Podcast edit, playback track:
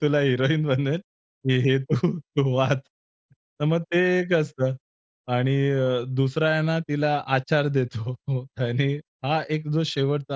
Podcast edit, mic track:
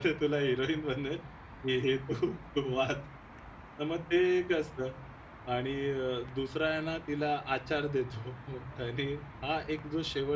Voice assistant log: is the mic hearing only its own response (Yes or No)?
Yes